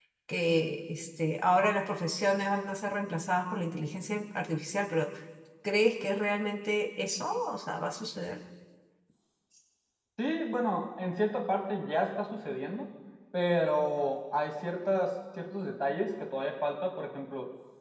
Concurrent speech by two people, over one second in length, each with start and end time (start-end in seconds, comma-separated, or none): none